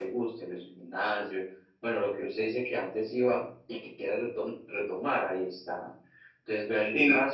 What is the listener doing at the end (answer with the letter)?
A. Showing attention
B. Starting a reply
A